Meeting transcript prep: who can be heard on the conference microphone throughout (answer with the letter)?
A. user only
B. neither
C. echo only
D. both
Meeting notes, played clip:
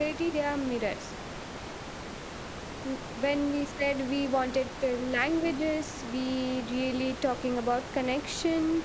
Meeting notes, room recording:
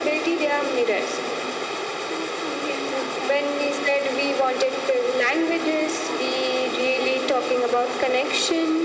D